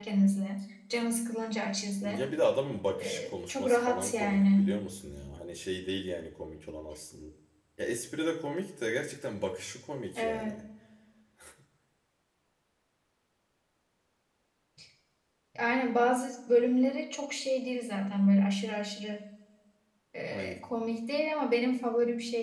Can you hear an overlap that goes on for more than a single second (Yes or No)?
Yes